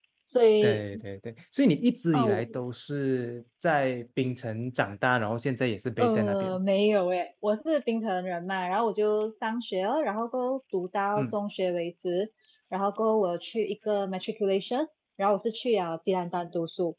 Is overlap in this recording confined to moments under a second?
Yes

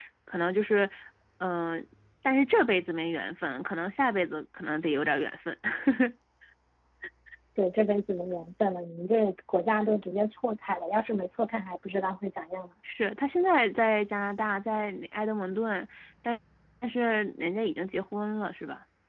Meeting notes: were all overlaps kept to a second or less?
Yes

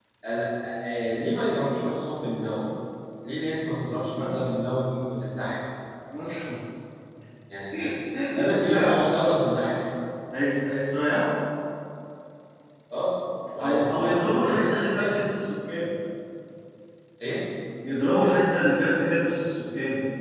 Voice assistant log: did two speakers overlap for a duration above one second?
Yes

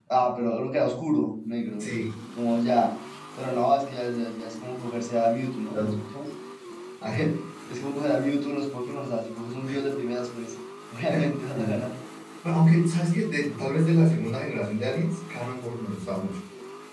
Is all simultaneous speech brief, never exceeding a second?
Yes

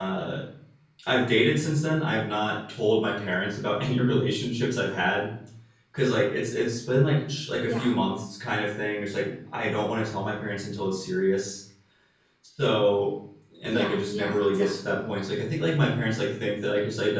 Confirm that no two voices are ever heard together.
No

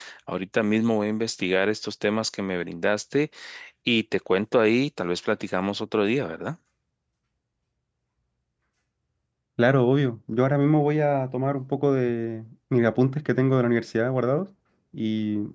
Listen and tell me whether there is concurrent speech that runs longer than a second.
No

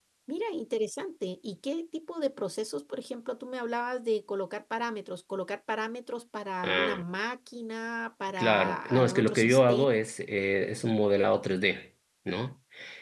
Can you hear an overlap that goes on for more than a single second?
Yes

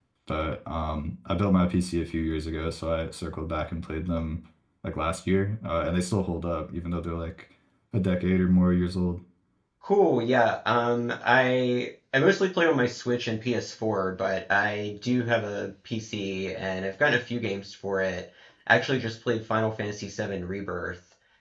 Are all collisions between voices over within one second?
Yes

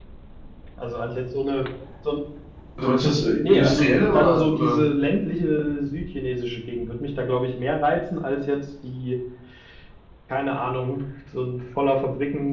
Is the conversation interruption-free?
No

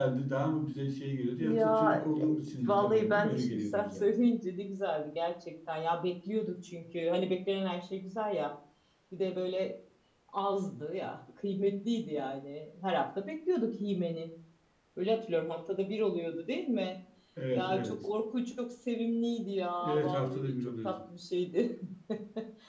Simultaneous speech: Yes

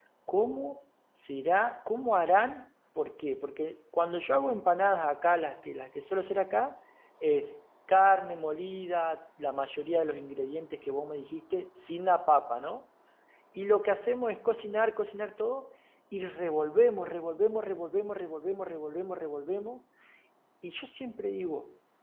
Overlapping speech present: No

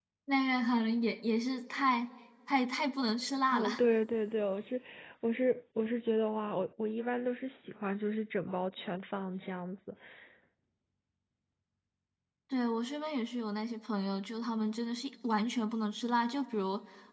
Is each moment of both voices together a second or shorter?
Yes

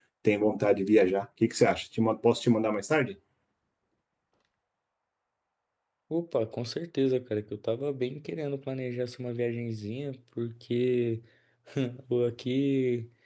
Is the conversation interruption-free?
Yes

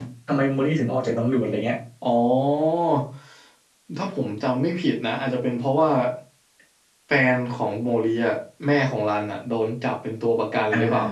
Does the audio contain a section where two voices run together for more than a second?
No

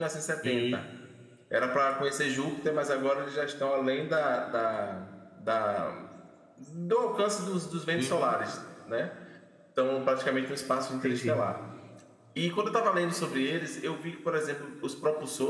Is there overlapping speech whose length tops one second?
No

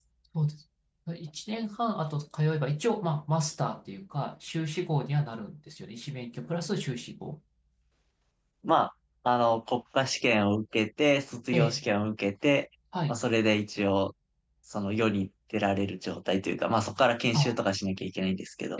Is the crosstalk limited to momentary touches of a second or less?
Yes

